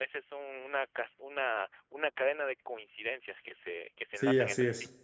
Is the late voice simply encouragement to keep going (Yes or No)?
No